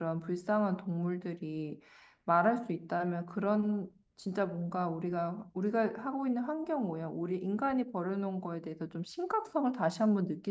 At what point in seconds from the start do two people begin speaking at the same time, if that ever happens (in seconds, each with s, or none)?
none